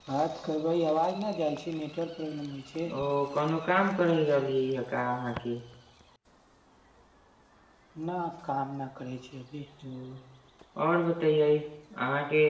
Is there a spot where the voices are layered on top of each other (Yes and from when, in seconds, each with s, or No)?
No